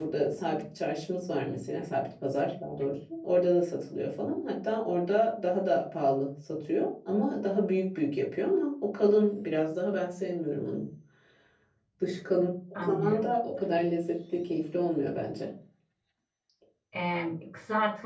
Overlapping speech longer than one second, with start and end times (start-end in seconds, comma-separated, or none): none